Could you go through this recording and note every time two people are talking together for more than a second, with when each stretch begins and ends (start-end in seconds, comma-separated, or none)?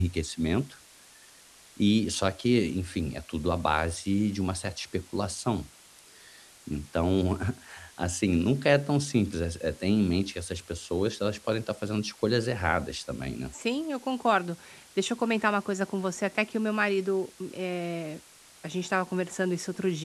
none